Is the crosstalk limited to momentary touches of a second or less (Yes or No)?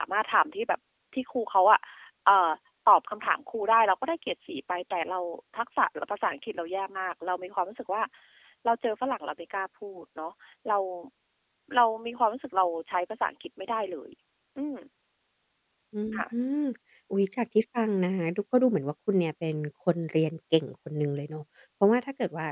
Yes